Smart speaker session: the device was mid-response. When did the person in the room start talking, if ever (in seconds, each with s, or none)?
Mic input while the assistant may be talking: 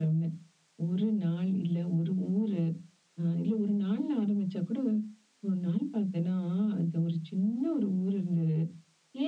none